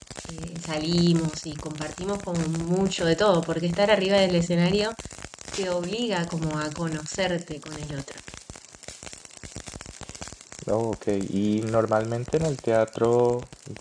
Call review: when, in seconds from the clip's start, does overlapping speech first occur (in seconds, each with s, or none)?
none